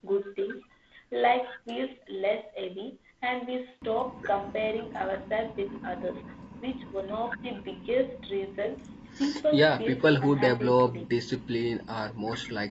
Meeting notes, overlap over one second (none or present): present